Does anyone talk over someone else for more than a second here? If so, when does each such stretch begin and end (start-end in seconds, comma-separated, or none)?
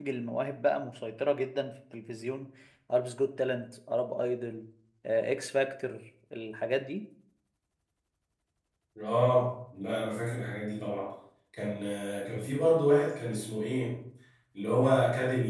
none